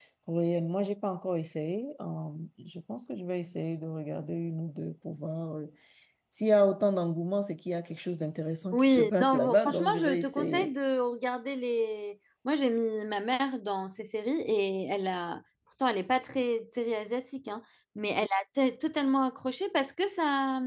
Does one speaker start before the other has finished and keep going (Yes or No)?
Yes